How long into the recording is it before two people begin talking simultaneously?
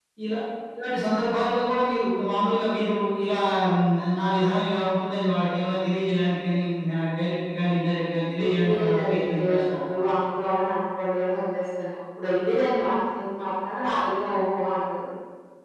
8 s

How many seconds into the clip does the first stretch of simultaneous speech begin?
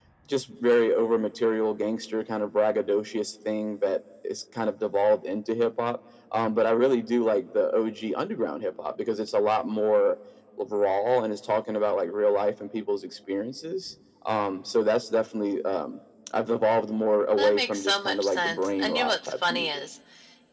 17 s

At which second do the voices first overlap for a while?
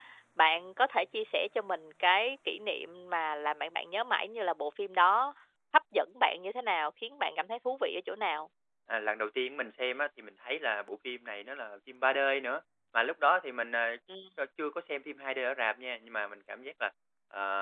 none

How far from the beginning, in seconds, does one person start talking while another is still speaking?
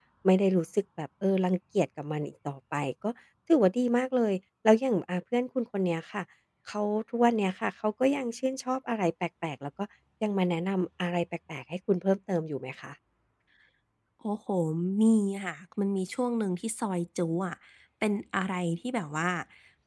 none

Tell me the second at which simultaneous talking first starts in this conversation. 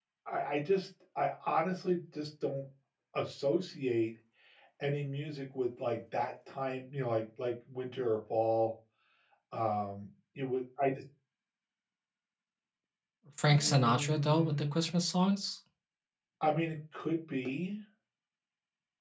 13 s

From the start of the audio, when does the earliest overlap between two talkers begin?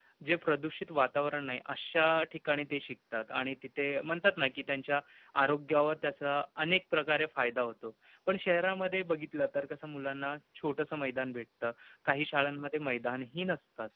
none

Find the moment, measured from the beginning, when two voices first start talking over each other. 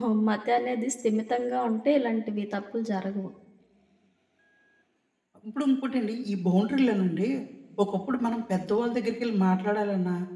none

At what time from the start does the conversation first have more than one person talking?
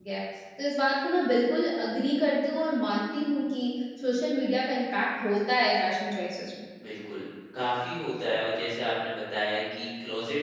none

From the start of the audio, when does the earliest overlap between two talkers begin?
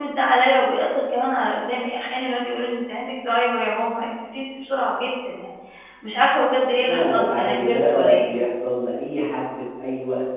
7 s

